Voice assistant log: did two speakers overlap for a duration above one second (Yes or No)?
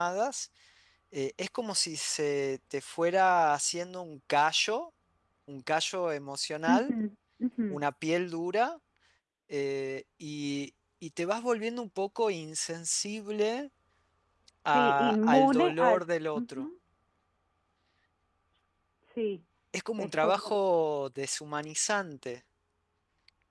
Yes